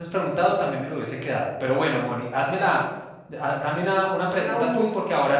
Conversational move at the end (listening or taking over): listening